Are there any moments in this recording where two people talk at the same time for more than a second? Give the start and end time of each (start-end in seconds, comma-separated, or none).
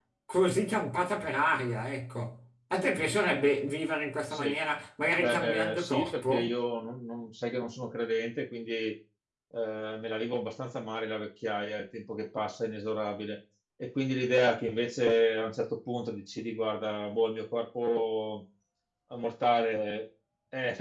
5.2-6.5